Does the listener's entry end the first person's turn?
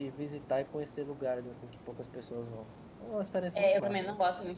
Yes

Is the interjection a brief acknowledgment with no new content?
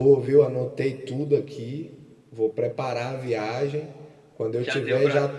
No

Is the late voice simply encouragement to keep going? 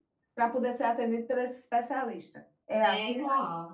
No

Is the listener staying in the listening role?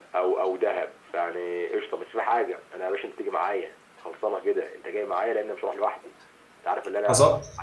Yes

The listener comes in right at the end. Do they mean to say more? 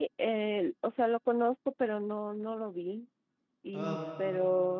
No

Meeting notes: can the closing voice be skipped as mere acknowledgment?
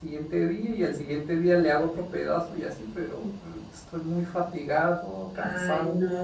No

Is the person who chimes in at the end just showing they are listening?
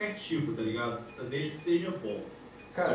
No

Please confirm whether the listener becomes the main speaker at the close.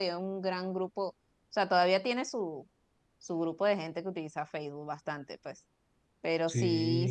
No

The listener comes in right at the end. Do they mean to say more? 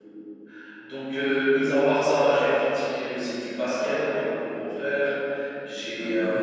No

